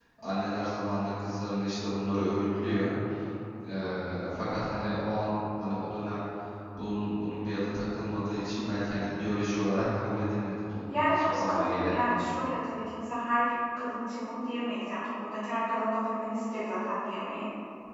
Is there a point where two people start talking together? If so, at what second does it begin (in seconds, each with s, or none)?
10.9 s